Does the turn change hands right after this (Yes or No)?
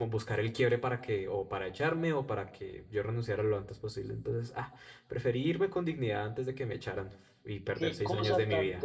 Yes